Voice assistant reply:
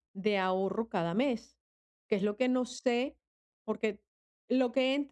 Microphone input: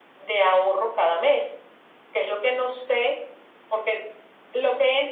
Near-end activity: none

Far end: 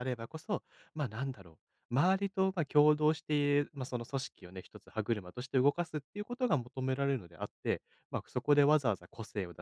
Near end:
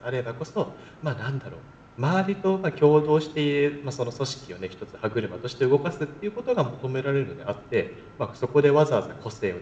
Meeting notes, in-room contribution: none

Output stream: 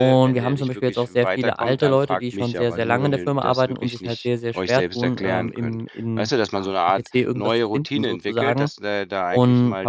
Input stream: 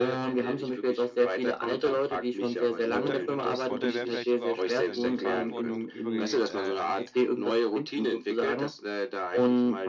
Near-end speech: present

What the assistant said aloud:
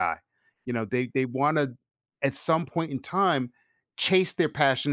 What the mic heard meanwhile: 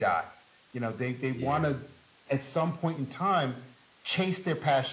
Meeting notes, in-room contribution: present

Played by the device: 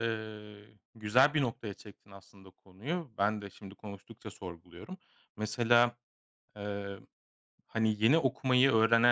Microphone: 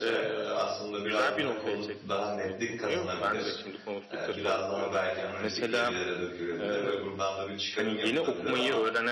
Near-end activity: present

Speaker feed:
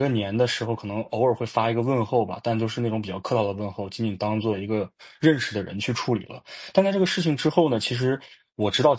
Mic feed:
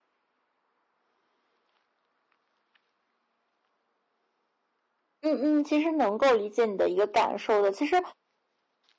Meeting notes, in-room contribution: present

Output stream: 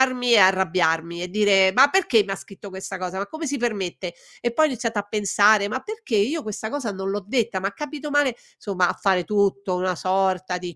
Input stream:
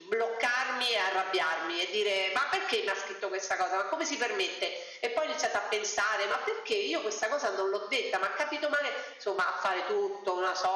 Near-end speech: none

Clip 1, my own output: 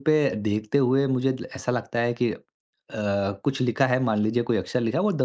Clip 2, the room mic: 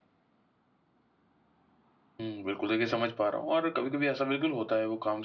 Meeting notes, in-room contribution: present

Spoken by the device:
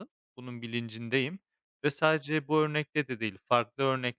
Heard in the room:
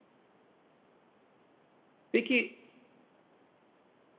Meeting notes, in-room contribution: present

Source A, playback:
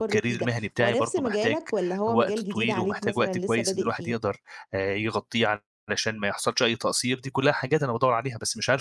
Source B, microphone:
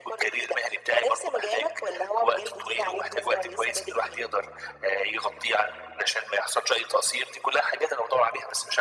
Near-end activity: none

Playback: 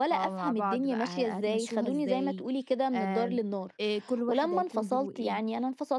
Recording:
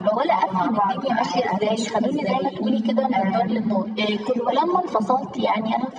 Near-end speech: present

